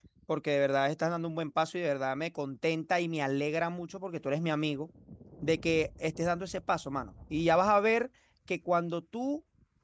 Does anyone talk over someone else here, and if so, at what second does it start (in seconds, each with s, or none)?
none